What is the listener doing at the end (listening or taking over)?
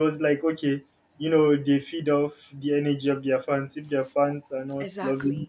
listening